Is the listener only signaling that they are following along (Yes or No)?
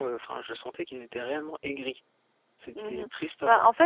No